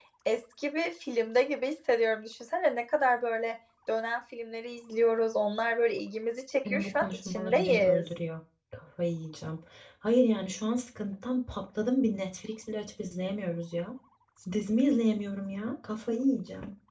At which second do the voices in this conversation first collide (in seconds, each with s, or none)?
6.7 s